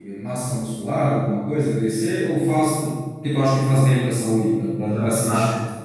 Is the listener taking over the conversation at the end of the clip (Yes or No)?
Yes